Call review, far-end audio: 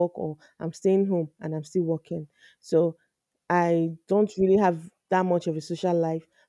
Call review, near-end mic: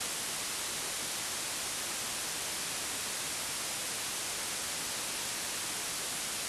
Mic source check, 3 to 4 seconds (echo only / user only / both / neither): neither